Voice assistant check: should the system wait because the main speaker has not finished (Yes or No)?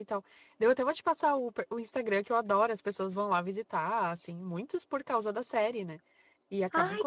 Yes